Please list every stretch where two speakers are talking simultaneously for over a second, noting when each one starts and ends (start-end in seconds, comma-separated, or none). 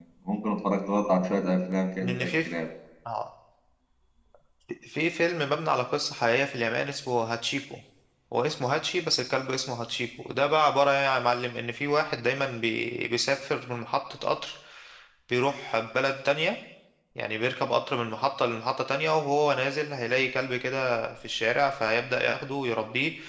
none